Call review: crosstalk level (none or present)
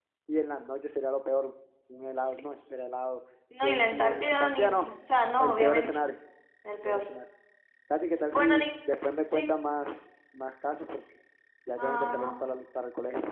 present